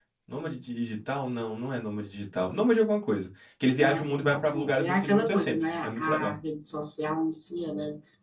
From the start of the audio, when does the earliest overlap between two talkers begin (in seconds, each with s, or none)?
3.8 s